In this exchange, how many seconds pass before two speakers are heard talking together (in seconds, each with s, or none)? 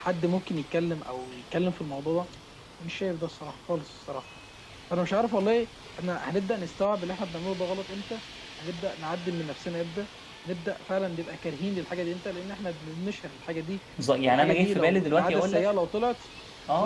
14.3 s